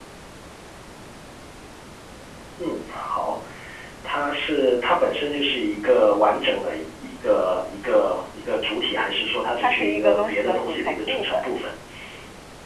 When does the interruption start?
9.6 s

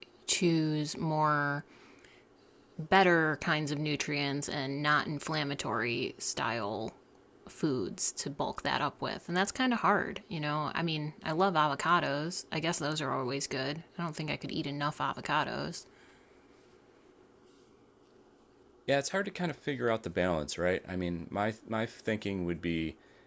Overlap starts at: none

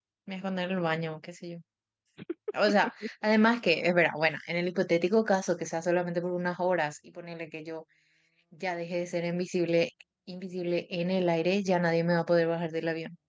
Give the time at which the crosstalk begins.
none

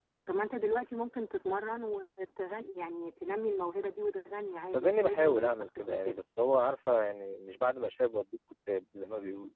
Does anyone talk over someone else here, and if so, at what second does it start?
4.7 s

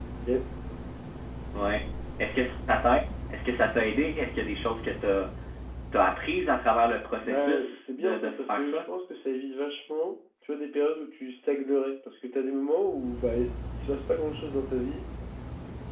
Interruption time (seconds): 7.2 s

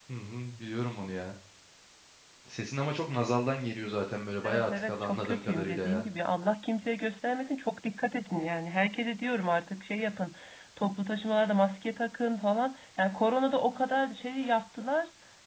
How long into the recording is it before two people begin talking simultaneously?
4.4 s

